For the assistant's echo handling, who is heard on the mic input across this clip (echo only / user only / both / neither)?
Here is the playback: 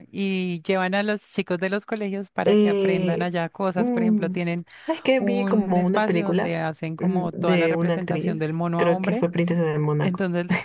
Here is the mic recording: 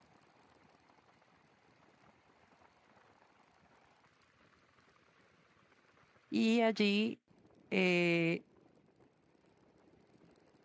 user only